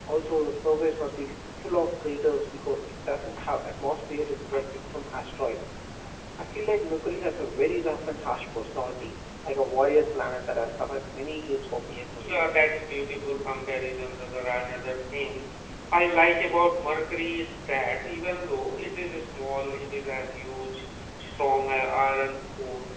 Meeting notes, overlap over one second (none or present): none